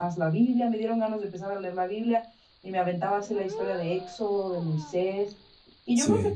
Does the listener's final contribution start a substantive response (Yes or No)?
No